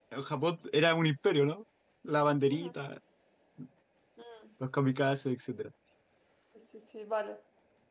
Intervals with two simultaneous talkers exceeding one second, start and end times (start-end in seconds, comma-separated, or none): none